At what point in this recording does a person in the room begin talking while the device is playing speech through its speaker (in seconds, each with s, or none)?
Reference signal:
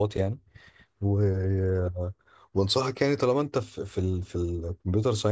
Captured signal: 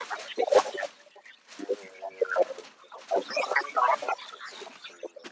none